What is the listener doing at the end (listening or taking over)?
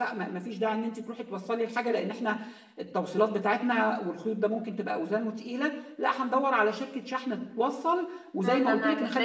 taking over